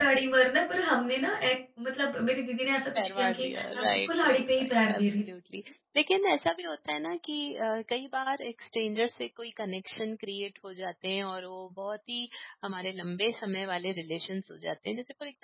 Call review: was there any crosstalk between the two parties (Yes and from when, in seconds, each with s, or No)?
Yes, from 2.7 s